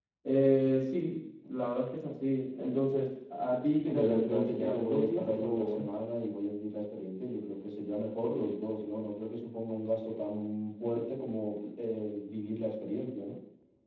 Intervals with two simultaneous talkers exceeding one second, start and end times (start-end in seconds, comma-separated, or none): 3.9-5.9